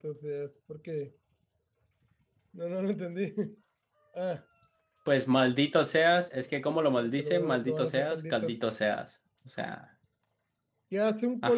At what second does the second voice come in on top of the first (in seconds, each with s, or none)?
7.0 s